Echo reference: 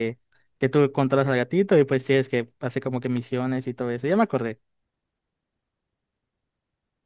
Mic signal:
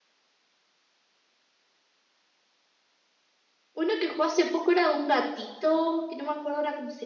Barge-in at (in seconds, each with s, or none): 3.7 s